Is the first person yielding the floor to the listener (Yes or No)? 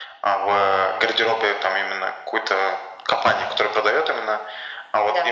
No